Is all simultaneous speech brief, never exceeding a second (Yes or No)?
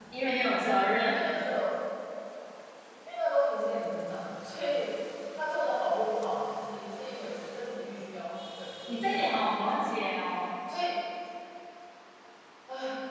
Yes